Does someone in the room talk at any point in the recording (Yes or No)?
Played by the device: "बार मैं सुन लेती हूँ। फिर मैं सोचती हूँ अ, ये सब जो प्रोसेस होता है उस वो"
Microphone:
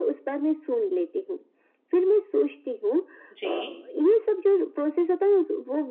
Yes